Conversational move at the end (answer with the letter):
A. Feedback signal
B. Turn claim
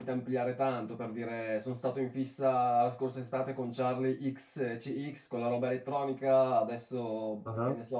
A